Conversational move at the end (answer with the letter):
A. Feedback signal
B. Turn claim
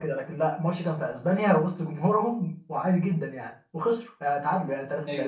B